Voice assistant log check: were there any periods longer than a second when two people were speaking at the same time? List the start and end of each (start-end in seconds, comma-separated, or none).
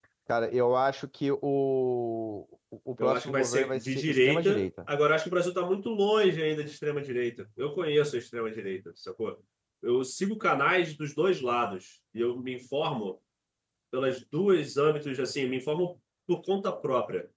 3.0-4.7